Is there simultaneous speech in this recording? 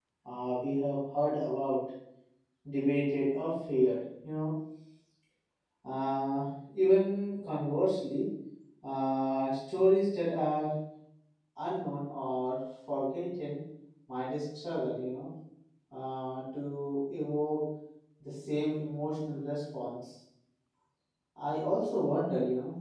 No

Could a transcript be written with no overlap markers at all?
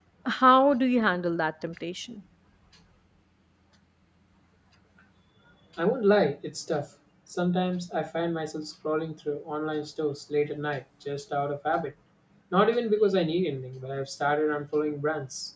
Yes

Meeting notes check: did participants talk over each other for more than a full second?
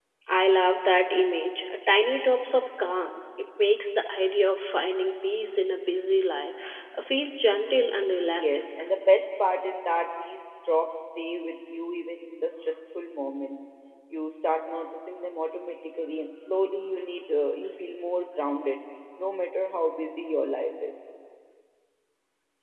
No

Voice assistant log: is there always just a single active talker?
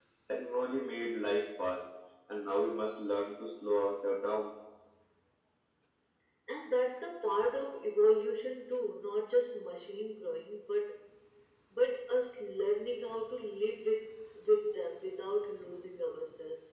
Yes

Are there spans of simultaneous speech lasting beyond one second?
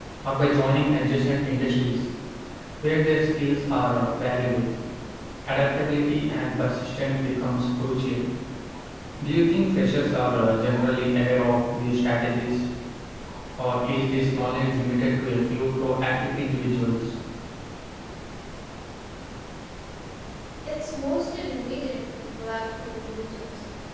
No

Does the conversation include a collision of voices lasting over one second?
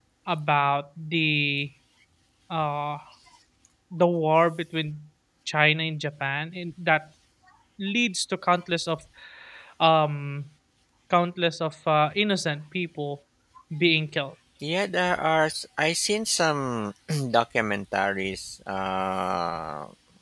No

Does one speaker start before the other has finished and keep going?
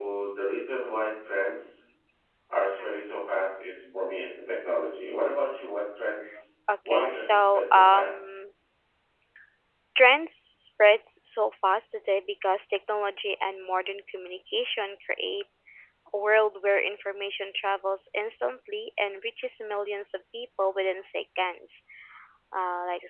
Yes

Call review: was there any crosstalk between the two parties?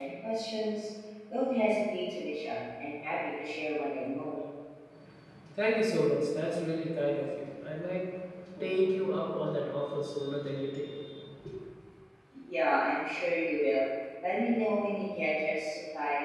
No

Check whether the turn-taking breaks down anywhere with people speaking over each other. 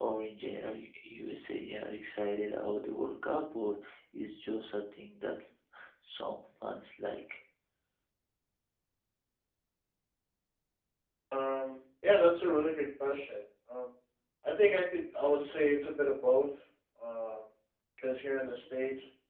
No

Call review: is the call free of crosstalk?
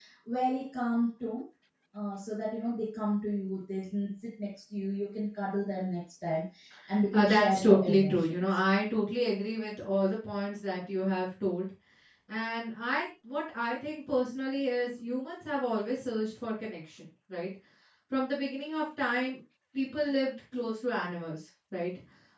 No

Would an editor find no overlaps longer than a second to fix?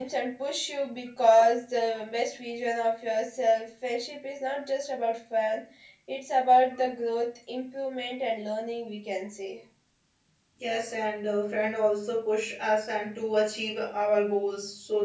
Yes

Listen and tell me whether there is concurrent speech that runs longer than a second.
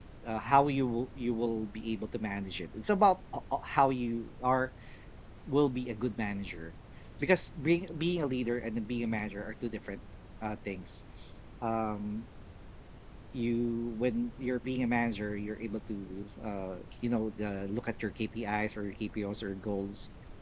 No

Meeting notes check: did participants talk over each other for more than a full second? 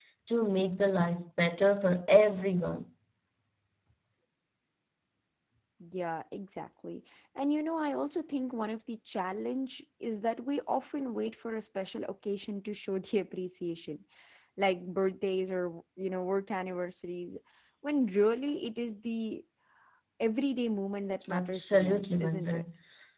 Yes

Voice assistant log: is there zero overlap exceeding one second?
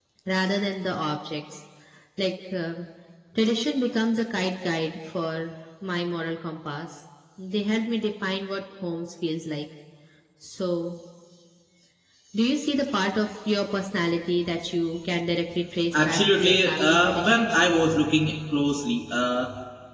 No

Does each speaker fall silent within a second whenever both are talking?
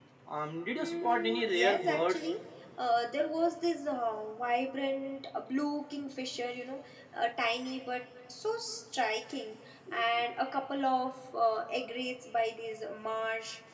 No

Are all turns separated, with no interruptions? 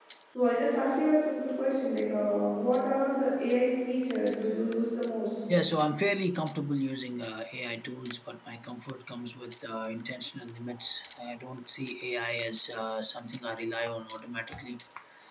Yes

